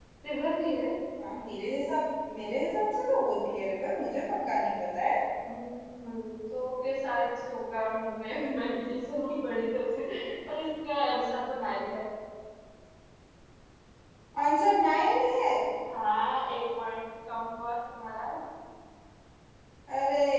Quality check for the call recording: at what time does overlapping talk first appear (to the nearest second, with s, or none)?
none